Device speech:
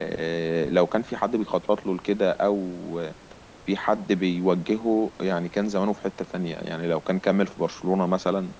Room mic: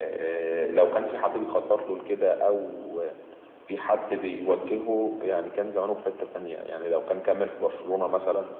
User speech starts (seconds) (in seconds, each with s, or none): none